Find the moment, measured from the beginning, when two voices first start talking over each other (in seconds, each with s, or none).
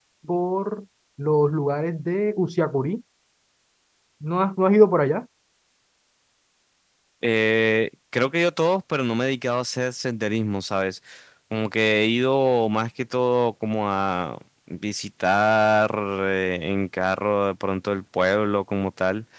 none